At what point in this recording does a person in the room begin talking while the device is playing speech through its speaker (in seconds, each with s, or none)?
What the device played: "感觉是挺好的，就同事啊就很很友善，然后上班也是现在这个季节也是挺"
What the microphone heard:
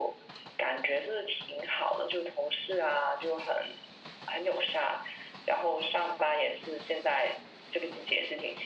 none